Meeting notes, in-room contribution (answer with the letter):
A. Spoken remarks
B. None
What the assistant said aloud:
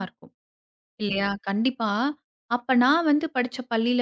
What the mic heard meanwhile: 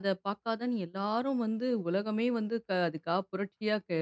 A